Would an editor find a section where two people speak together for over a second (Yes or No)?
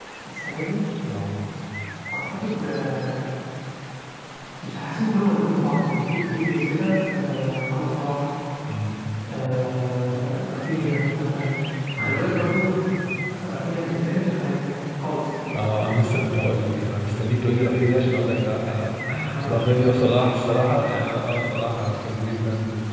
No